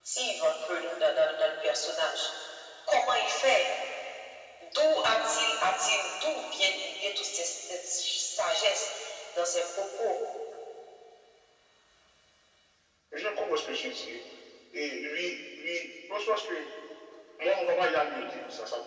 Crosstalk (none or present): none